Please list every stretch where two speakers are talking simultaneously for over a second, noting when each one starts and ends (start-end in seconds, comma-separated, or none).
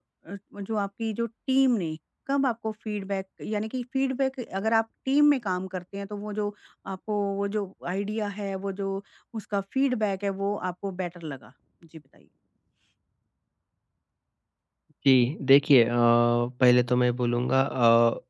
none